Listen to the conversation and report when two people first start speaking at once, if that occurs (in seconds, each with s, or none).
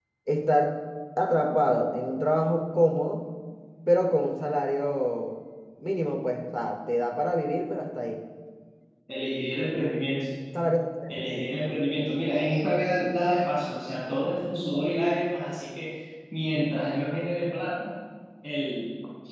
none